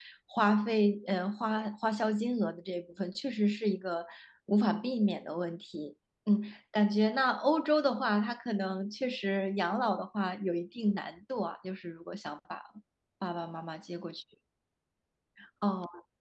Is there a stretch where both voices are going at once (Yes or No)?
No